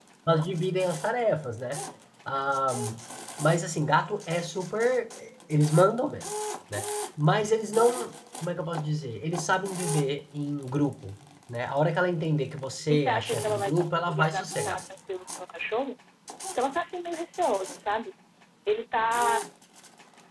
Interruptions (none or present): present